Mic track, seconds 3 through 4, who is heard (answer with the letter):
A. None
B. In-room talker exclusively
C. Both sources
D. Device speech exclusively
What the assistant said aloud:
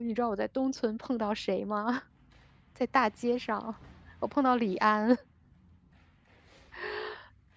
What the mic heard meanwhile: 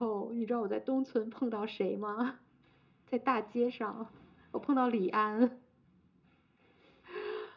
D